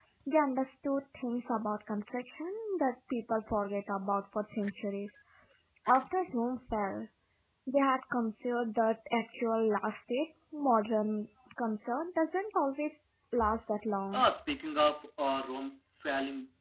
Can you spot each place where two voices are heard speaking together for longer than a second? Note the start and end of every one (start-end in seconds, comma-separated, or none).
none